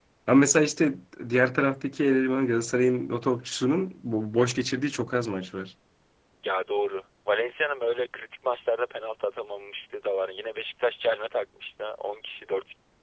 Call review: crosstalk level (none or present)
none